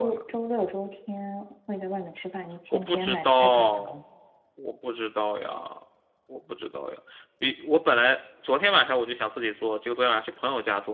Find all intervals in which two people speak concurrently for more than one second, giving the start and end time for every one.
2.7-3.9

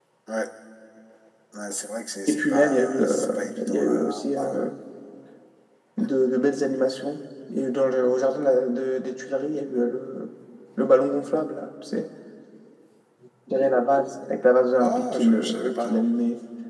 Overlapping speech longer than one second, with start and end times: 2.3-4.5, 14.8-16.1

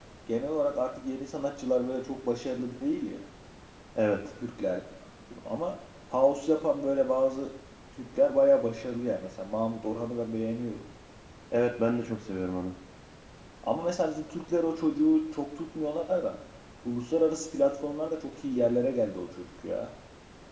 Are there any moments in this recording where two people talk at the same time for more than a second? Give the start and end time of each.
none

